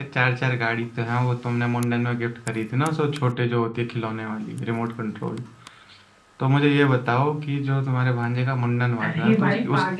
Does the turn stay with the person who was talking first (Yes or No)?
No